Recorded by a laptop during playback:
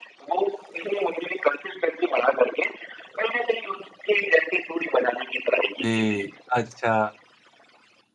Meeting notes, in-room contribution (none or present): present